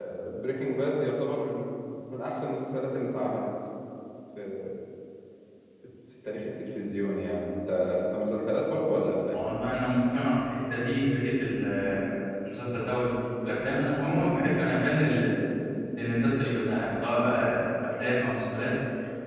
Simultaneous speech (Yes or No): No